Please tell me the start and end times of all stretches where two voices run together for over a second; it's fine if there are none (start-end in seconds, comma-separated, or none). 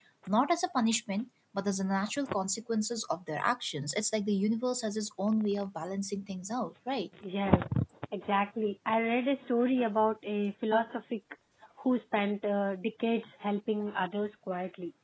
none